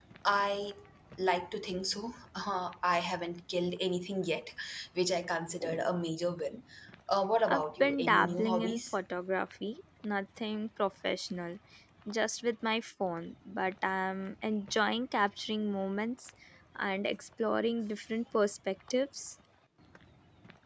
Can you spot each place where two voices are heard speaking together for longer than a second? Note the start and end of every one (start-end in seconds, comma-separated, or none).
7.5-9.0